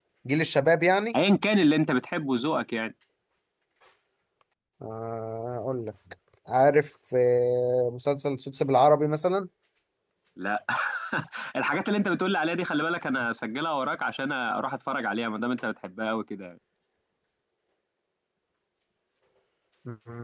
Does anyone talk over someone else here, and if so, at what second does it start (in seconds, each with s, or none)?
none